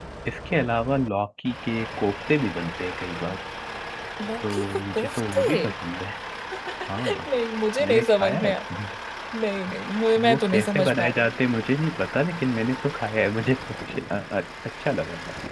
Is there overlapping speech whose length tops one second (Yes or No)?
Yes